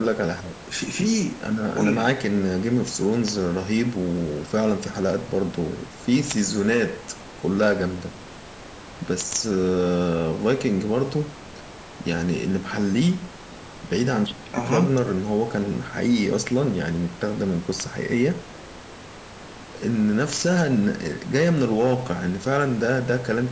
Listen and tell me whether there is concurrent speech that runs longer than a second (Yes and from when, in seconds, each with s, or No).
No